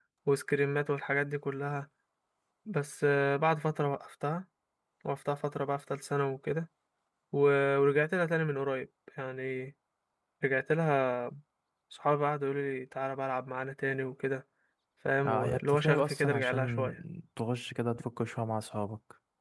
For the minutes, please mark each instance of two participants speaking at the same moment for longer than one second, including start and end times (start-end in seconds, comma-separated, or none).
15.2-17.0